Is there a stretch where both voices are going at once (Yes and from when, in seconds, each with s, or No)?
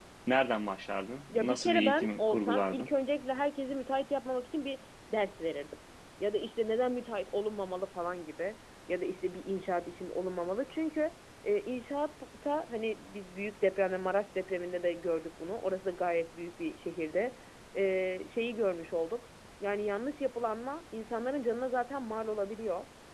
Yes, from 1.3 s